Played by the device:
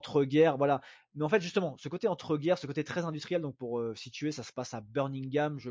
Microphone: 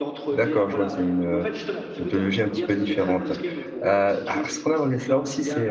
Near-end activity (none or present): present